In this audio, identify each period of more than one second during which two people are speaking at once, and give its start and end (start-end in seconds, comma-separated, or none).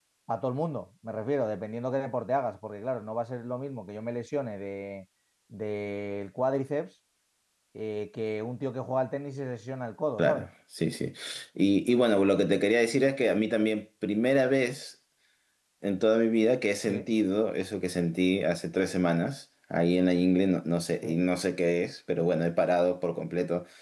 none